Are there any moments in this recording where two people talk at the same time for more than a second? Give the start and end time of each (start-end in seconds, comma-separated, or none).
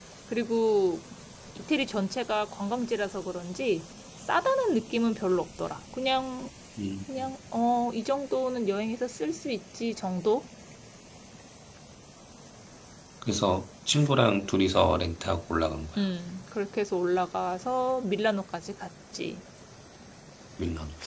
none